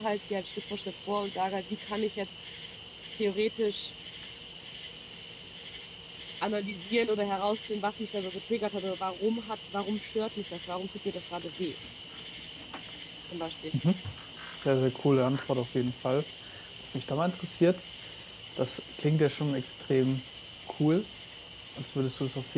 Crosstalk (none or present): none